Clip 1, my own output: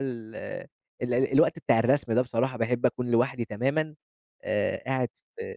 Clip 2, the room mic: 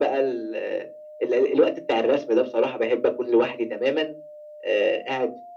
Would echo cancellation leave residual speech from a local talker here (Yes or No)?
No